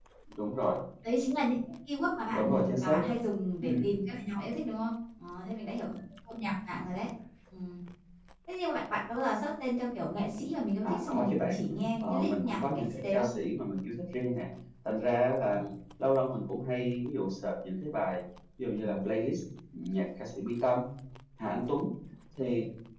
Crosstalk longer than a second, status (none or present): present